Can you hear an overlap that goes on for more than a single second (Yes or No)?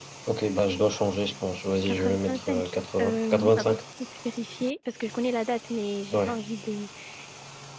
Yes